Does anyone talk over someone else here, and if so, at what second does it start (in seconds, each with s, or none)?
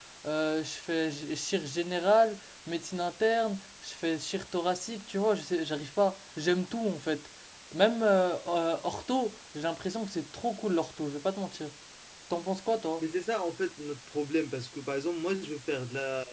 none